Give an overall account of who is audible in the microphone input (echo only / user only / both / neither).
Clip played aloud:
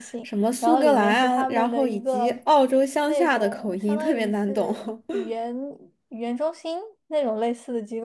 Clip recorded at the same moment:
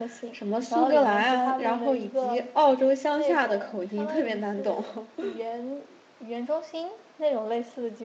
echo only